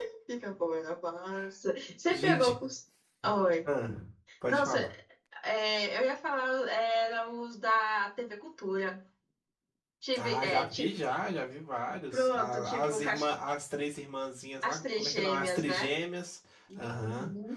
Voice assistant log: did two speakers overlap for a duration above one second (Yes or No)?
Yes